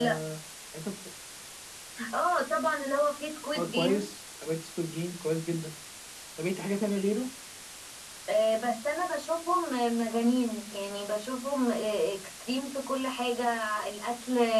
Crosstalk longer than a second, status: none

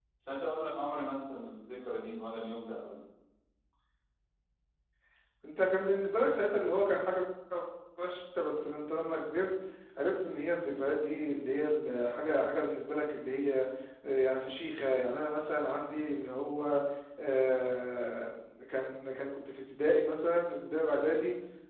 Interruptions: none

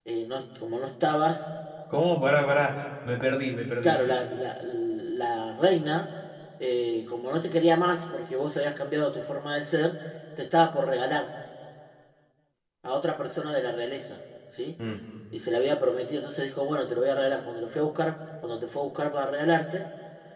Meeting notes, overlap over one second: none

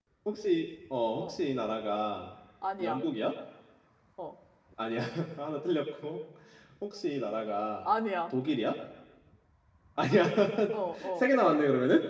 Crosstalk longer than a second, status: none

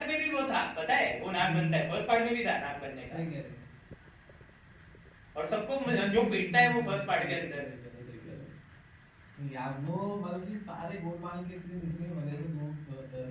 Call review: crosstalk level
present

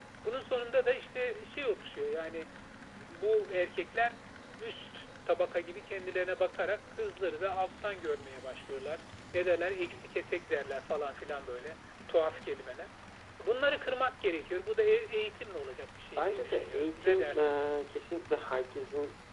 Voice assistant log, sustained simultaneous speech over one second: present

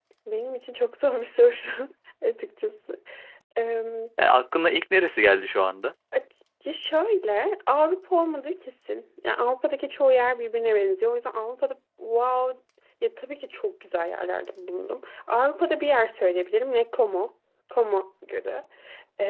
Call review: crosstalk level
none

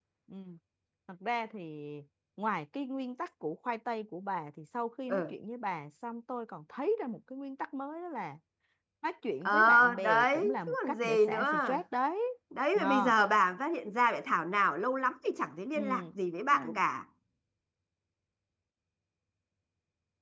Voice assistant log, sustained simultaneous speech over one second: present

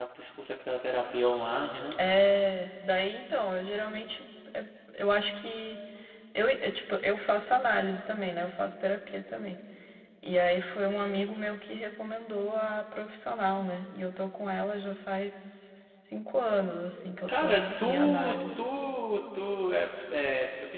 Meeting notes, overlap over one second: present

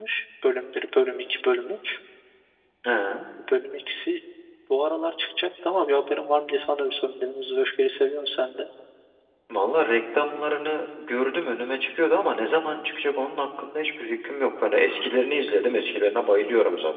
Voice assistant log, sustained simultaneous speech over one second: none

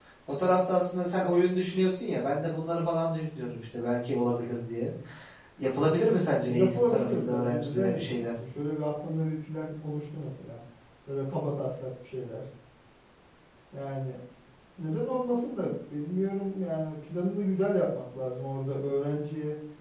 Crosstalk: present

